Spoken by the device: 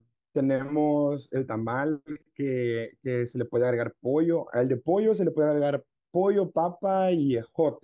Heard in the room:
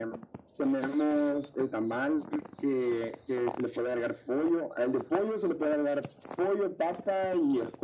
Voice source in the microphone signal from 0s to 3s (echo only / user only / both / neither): echo only